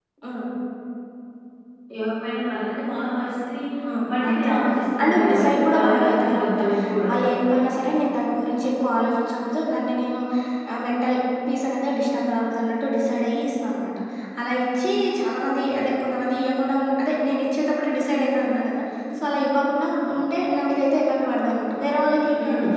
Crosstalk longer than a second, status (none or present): present